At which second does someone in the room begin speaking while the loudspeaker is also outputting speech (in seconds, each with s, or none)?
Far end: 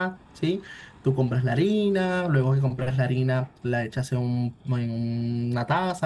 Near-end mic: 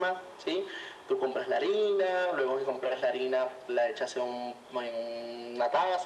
none